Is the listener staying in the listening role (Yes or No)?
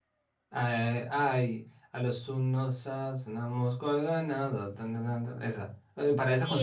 No